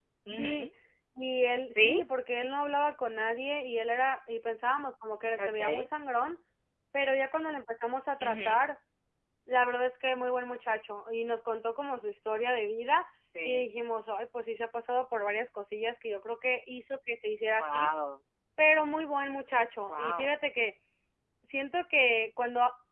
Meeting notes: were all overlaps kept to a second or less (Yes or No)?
Yes